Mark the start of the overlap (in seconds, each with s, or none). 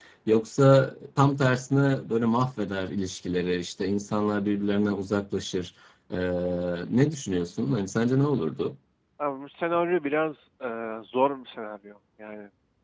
none